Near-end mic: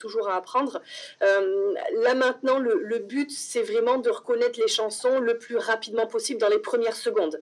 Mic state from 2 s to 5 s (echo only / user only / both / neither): echo only